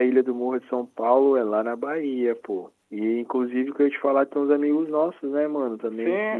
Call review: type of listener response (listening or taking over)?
taking over